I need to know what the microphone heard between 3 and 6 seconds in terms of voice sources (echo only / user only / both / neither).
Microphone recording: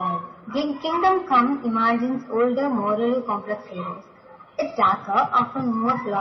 echo only